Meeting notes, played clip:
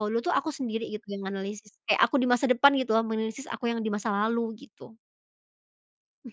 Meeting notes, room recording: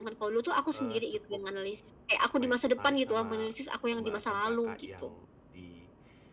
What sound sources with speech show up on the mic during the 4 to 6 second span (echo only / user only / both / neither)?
both